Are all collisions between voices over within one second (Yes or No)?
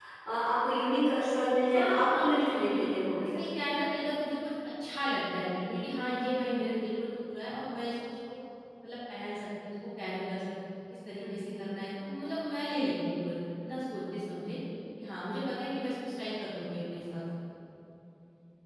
No